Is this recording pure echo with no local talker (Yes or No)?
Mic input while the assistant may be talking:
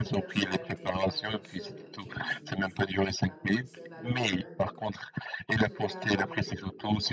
No